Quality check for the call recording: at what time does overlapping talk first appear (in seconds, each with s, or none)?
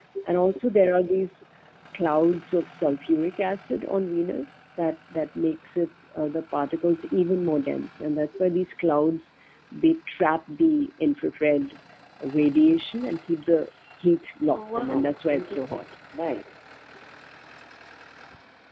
14.5 s